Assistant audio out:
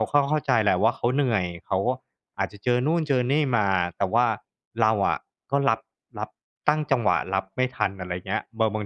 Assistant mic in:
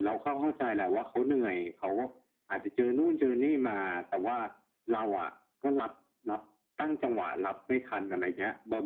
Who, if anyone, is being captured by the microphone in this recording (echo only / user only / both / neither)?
echo only